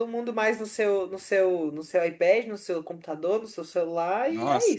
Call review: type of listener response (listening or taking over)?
taking over